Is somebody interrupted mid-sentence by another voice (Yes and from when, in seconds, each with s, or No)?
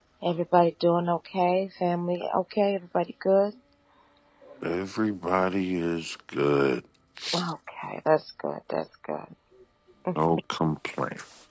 No